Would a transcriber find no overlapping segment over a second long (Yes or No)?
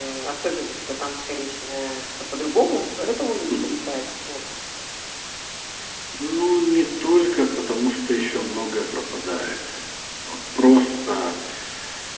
Yes